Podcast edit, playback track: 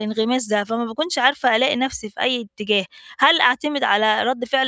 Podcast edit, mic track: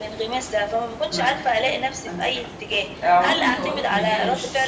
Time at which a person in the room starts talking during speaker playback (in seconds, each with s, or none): 1.1 s